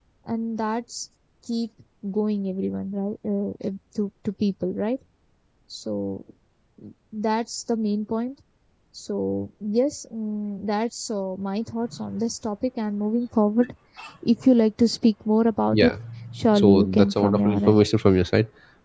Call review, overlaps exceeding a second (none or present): present